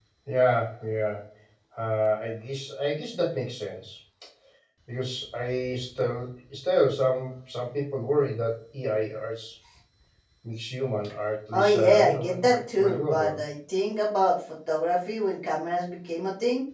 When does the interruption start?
12 s

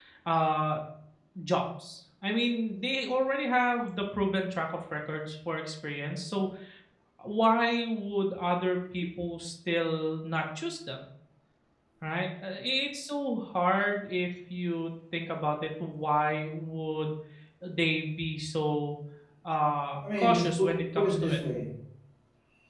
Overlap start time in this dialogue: 20 s

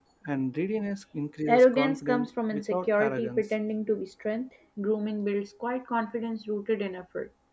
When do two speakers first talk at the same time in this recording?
1 s

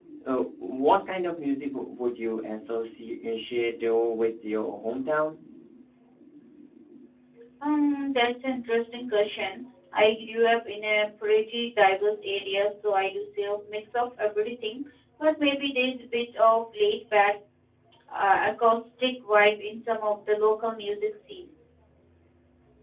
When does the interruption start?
none

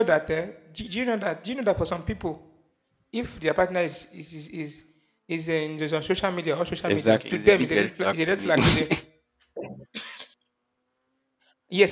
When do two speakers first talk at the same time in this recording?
7 s

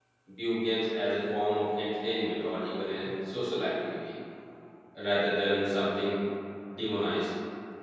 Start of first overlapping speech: none

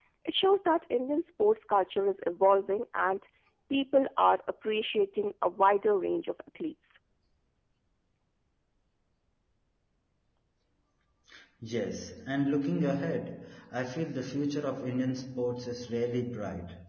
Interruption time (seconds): none

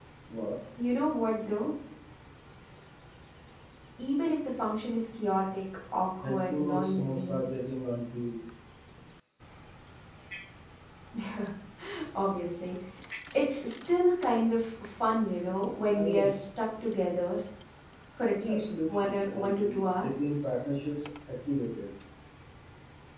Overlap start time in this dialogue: 6 s

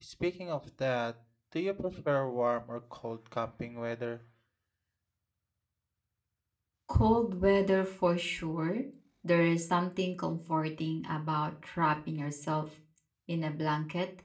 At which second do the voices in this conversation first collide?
none

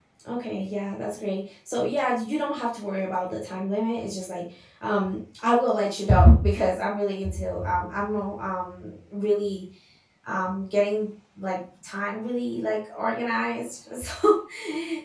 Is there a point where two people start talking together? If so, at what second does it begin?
none

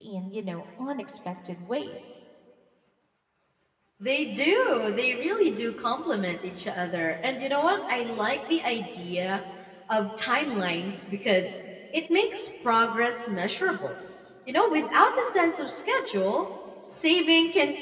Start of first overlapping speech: none

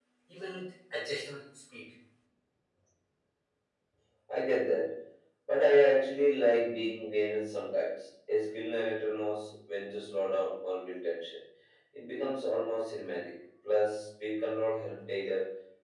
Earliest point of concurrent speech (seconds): none

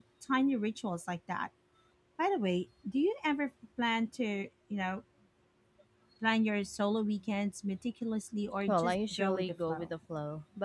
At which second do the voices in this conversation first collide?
9 s

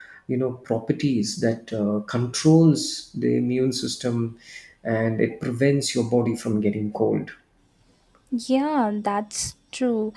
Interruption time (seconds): none

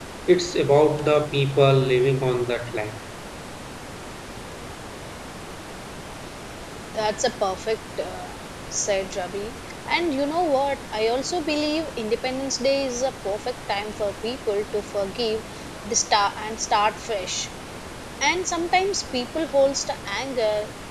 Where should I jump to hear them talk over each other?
none

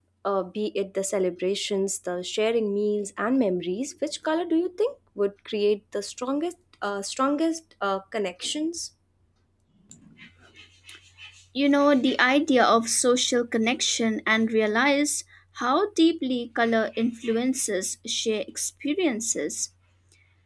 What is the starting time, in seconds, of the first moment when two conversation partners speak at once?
none

